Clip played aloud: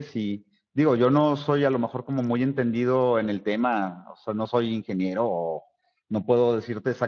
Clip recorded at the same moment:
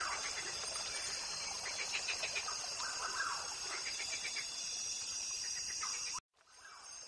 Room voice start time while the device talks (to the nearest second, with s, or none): none